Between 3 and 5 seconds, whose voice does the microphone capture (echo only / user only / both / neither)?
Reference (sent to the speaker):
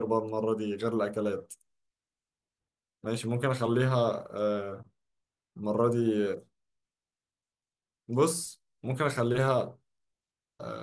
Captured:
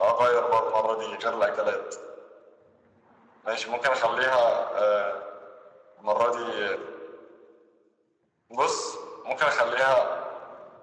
echo only